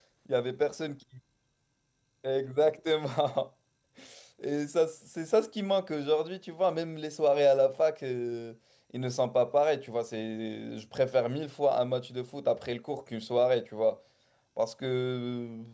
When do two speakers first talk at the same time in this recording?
none

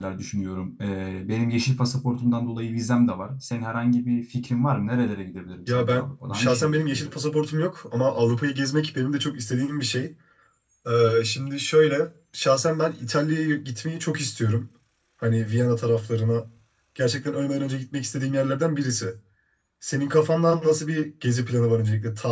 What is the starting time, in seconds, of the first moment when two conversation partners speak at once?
5.7 s

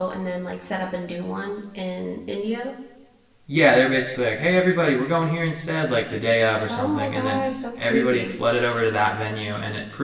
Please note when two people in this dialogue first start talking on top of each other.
6.7 s

